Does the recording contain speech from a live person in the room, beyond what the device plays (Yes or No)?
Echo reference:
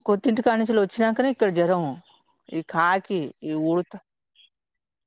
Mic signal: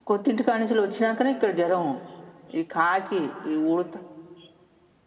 No